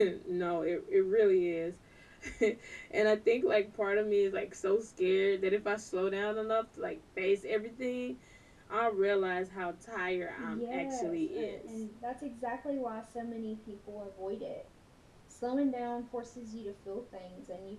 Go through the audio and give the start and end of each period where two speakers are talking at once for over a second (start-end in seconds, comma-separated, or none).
10.4-11.7